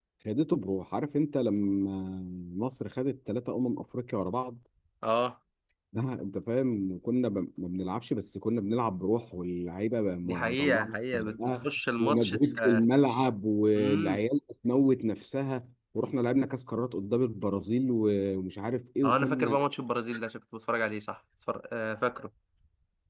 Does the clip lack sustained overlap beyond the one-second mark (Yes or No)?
No